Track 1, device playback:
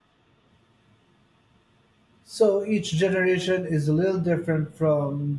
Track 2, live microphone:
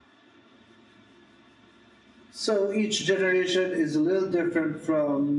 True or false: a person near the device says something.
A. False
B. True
A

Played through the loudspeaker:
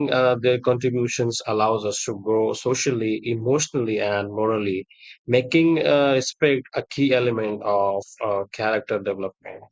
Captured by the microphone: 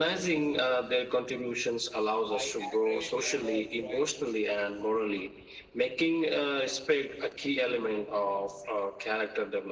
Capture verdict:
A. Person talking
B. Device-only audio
A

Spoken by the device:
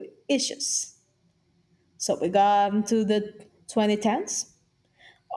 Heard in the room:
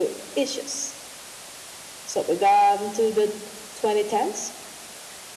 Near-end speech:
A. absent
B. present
A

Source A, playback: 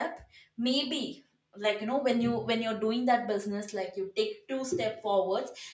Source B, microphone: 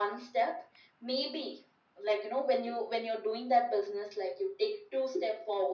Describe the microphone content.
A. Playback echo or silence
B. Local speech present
A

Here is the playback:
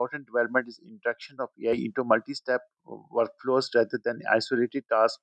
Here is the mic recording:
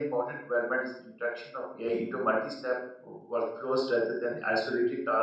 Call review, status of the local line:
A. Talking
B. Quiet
B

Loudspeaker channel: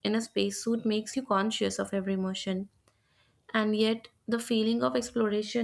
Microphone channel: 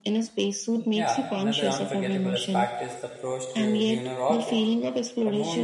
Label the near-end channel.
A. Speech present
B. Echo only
A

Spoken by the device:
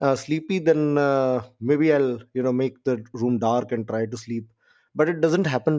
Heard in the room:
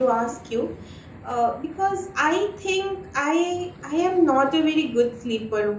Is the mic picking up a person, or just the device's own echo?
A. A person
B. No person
A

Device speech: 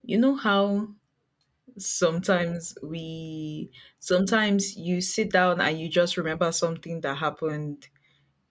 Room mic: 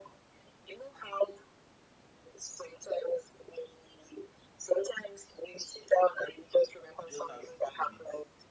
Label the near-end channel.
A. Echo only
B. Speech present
B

